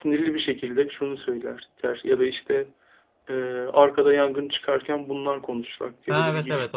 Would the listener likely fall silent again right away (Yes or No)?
No